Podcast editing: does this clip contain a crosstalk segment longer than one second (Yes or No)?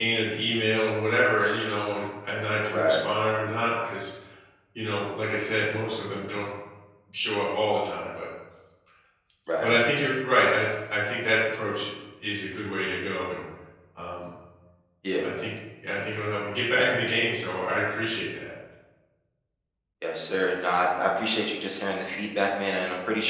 No